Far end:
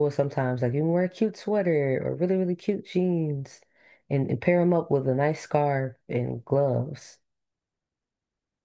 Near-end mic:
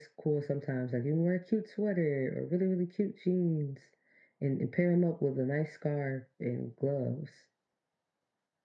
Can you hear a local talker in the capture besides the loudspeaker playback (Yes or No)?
No